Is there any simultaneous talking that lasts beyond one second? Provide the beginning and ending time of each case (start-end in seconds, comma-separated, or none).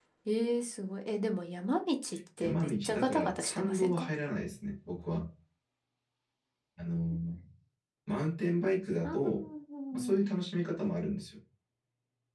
2.4-4.1